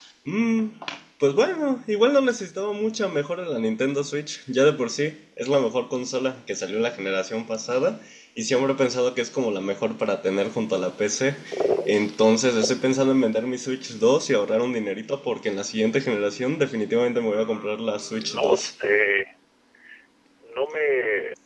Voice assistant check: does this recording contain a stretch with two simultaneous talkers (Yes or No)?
Yes